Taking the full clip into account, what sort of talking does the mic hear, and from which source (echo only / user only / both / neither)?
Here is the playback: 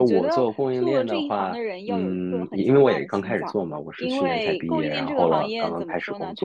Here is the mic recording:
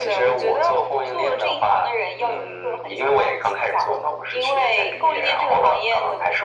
echo only